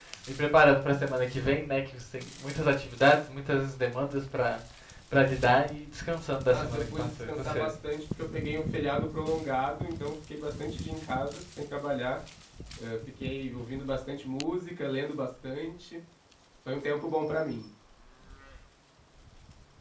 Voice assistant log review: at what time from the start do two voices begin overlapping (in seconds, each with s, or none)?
6.5 s